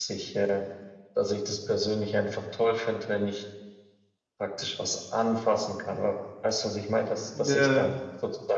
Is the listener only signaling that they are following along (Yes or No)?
Yes